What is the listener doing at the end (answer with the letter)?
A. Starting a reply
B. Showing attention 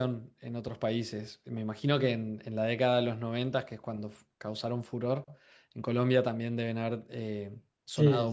A